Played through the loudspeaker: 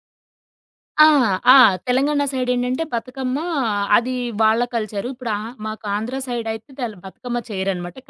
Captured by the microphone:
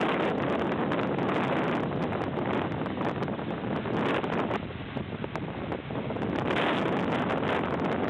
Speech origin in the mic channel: neither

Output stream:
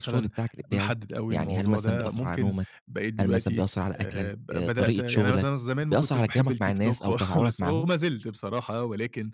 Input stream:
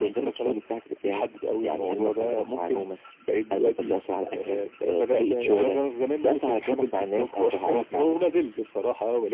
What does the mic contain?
echo only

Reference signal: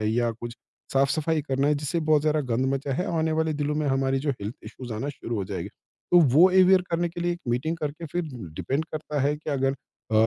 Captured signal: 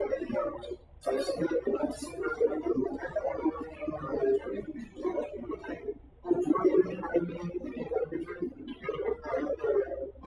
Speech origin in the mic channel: echo only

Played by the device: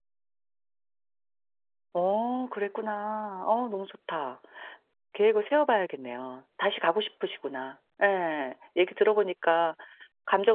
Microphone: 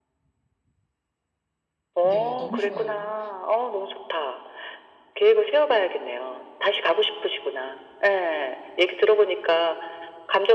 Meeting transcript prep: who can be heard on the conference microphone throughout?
both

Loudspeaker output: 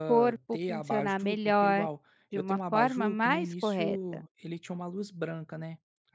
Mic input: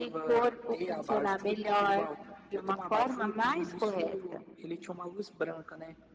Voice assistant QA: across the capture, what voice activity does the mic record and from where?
echo only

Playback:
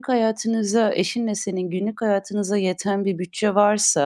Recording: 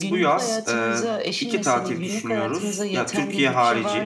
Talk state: both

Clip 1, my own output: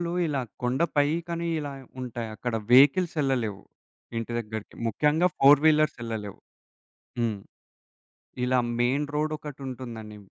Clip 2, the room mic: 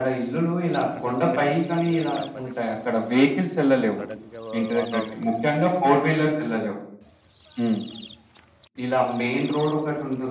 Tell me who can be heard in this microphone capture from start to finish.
both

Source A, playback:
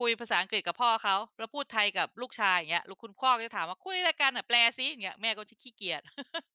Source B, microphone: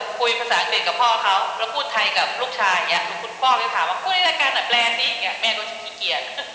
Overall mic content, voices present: echo only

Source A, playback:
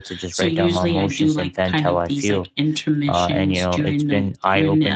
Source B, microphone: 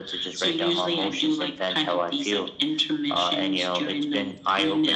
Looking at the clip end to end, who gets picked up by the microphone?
echo only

